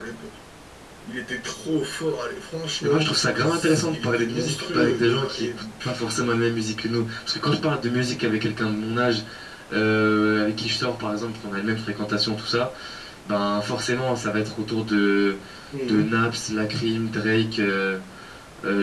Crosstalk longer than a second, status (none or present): present